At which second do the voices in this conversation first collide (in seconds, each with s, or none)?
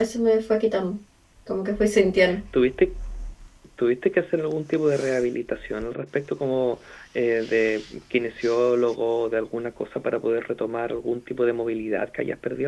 none